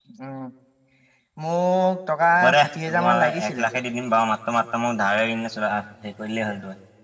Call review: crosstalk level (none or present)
present